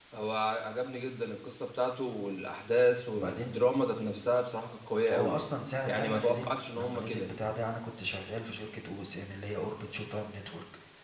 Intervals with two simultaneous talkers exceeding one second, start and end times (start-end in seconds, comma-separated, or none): 5.9-7.3